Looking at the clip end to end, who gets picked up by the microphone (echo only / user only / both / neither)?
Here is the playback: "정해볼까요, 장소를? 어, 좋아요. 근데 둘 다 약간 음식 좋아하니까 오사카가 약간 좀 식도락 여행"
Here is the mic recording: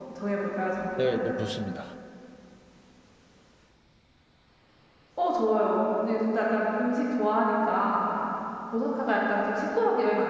both